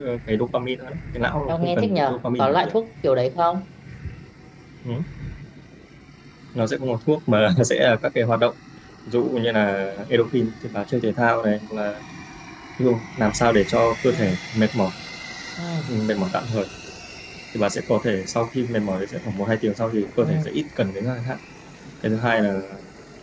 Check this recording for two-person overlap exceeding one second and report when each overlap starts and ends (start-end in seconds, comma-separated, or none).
1.5-2.7